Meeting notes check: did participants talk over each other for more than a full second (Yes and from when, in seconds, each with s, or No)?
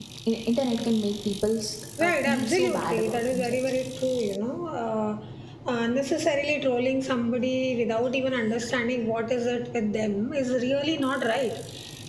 Yes, from 2.0 s